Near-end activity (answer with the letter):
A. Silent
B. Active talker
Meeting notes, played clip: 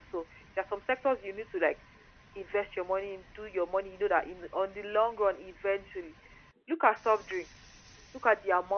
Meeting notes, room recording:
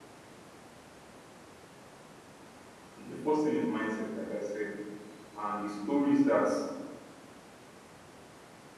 B